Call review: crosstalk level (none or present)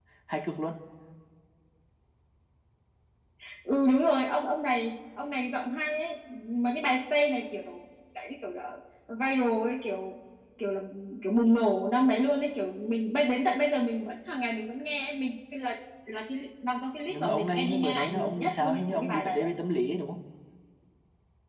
present